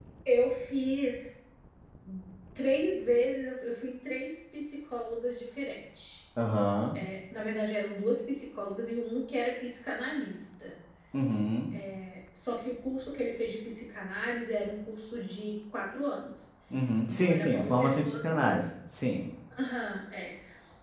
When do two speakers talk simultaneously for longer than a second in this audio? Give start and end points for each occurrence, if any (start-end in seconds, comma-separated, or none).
17.1-18.5